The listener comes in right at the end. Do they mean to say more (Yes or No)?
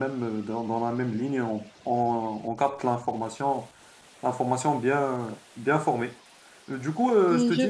No